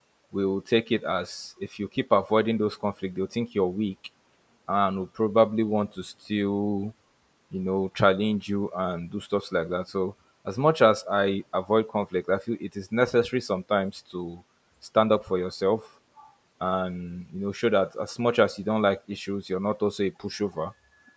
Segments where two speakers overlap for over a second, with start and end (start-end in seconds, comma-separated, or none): none